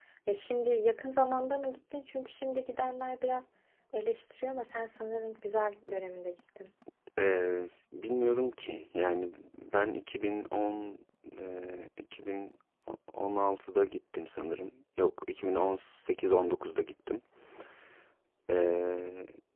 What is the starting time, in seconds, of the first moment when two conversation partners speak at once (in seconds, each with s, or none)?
none